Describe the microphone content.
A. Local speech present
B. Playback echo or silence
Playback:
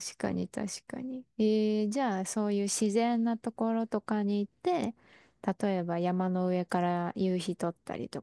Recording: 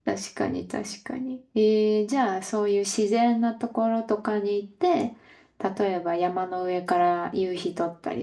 B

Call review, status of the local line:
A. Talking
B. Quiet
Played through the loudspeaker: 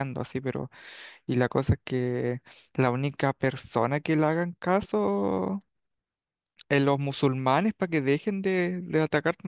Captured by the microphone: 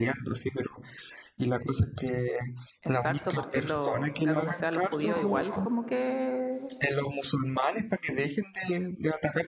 A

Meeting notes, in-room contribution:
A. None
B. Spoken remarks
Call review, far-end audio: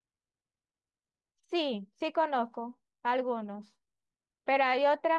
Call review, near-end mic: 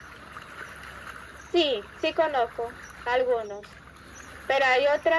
A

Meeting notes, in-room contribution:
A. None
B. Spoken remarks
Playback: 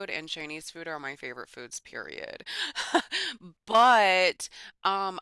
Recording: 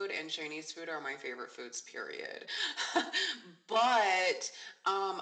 A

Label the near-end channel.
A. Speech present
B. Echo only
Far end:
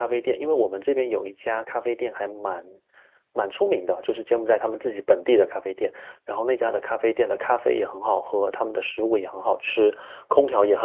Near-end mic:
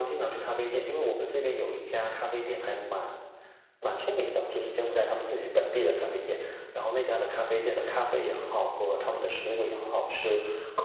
B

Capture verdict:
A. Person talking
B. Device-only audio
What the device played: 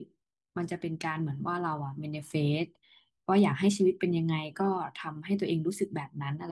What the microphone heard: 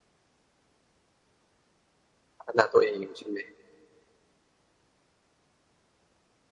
A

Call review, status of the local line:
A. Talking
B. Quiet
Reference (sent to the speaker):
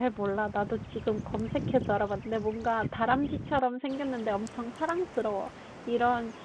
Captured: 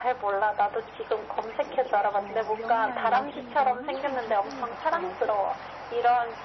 A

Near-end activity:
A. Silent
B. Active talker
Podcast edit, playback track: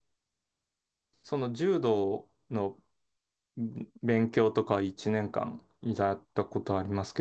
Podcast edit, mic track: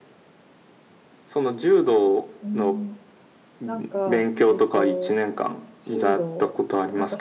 B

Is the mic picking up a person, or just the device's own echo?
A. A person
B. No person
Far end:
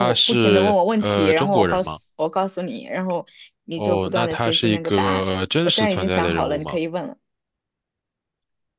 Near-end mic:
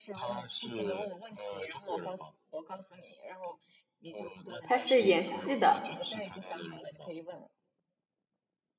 A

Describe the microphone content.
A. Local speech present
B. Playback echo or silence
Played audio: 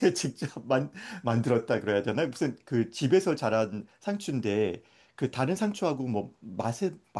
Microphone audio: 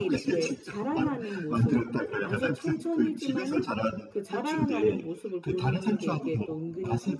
A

